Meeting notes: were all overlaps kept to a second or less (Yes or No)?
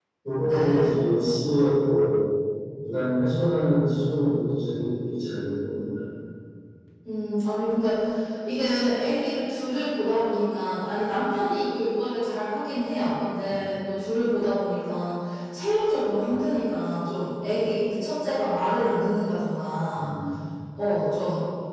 Yes